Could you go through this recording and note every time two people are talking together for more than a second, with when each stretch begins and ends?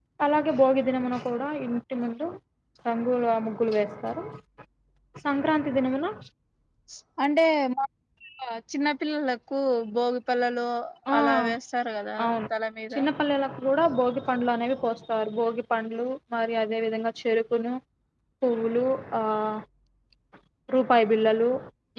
none

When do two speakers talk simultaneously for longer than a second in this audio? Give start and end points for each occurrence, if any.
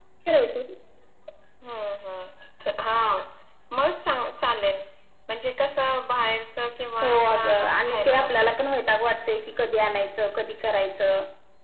7.0-8.3

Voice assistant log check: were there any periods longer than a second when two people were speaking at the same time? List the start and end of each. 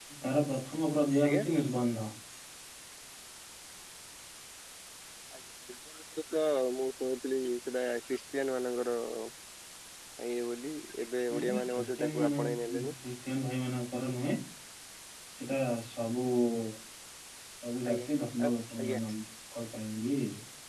11.3-12.8

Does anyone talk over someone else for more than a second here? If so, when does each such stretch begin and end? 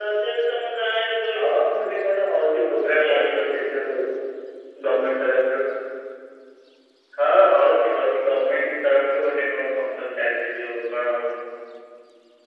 none

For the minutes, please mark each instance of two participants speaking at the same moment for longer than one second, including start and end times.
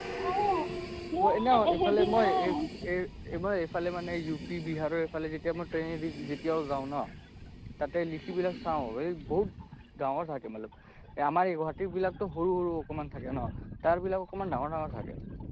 1.2-2.5

